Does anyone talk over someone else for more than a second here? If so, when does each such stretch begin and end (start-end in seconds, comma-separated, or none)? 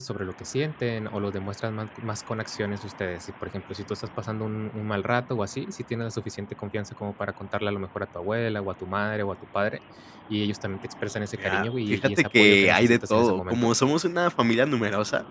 11.4-13.7